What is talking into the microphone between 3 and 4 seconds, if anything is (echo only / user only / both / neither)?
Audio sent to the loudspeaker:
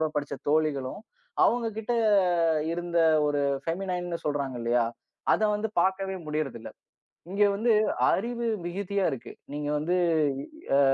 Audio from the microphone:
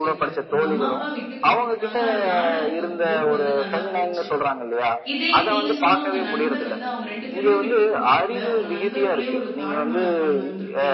both